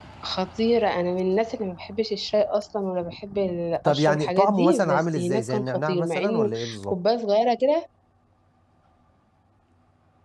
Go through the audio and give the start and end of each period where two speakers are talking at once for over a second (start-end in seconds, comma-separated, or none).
3.8-7.0